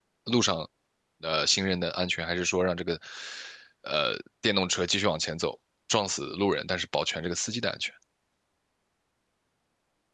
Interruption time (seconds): none

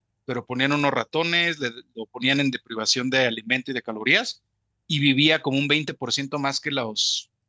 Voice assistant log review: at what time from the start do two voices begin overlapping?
none

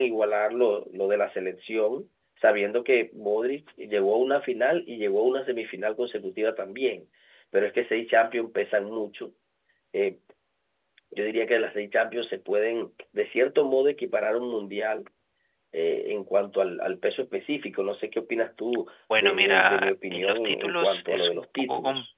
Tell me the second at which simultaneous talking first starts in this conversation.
19.1 s

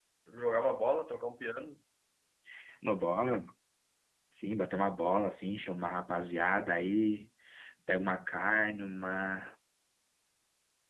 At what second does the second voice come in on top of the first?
none

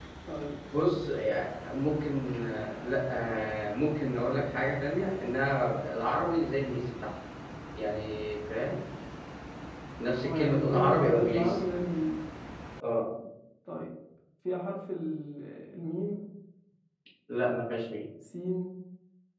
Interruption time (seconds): 10.2 s

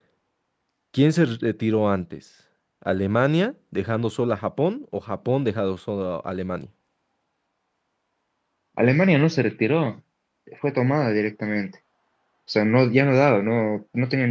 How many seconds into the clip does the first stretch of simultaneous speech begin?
none

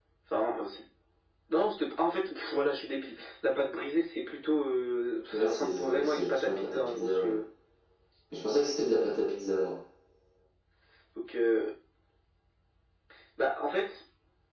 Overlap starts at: 5.3 s

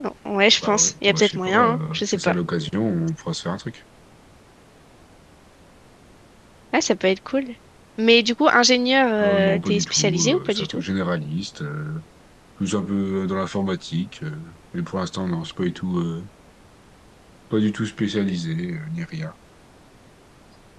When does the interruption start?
0.6 s

